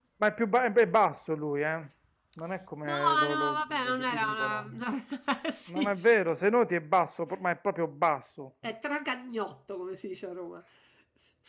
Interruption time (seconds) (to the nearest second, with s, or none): 3 s